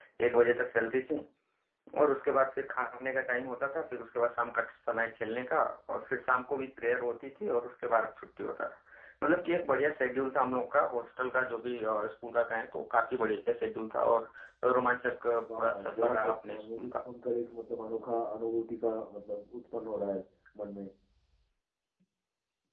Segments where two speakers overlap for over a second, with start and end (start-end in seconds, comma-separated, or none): 15.6-17.0